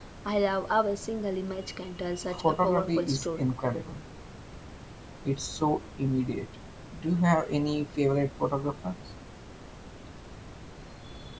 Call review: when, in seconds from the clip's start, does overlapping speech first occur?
2.3 s

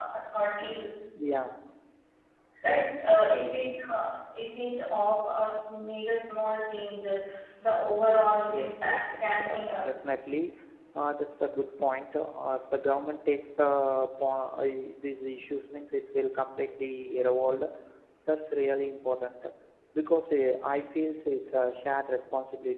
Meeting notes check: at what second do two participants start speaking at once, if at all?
8.5 s

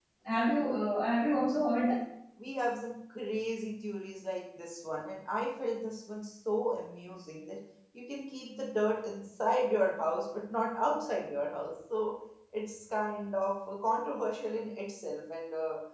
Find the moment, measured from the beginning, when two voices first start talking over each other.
none

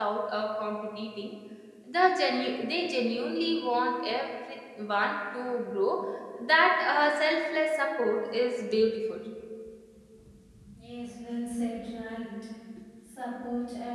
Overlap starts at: none

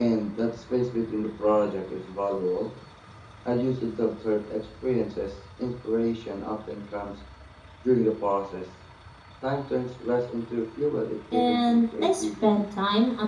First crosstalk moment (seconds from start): 11.3 s

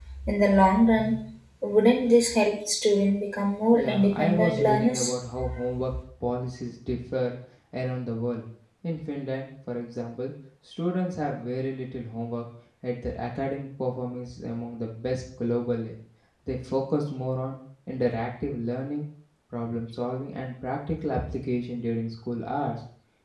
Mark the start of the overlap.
3.7 s

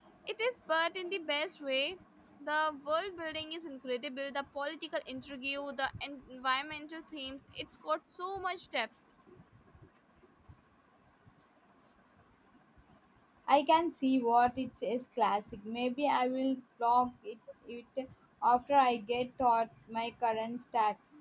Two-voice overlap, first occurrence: none

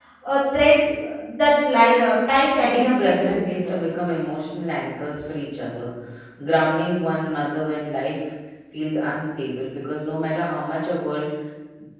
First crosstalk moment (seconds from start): 2.6 s

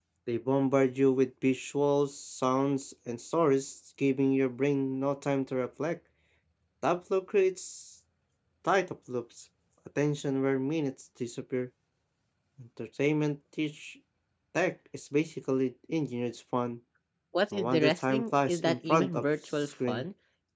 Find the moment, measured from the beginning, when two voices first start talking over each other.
17.5 s

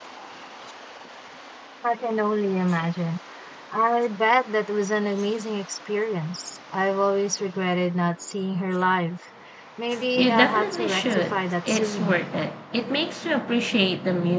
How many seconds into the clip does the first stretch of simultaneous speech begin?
10.2 s

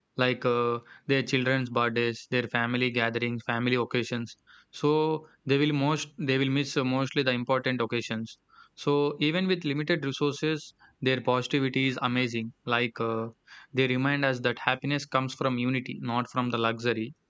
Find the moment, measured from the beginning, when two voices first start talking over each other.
none

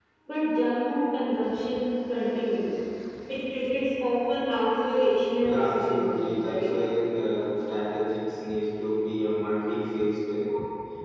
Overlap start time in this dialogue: 5.4 s

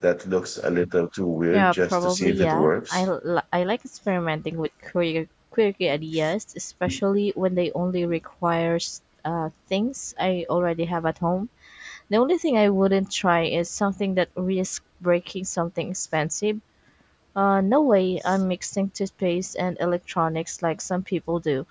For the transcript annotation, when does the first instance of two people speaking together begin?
1.5 s

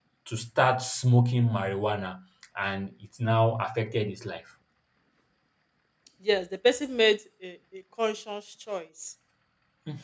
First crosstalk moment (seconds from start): none

